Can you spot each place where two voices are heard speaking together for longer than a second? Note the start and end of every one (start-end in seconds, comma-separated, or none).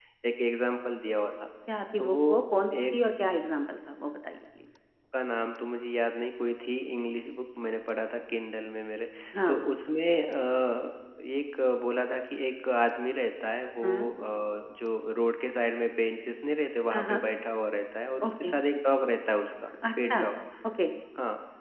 none